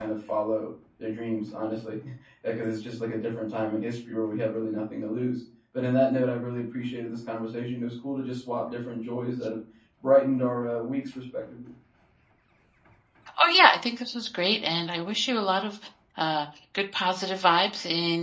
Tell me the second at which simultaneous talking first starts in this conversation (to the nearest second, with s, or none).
none